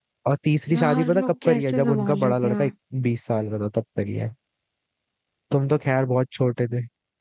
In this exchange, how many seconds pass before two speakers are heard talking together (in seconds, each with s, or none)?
0.7 s